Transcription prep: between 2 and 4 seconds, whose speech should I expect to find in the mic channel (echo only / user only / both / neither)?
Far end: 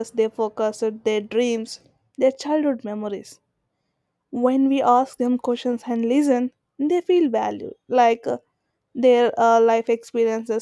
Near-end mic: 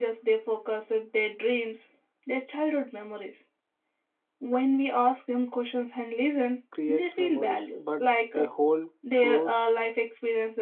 echo only